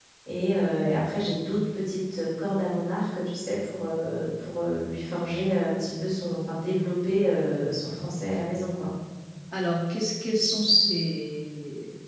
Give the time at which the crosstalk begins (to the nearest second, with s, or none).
none